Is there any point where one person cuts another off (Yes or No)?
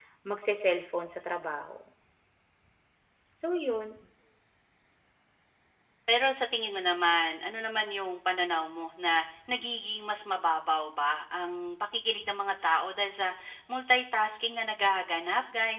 No